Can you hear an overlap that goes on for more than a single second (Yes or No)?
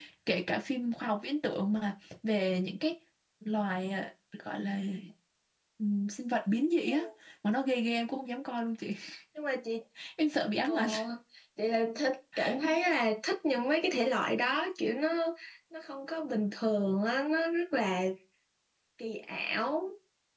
No